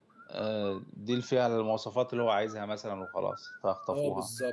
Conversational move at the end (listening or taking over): taking over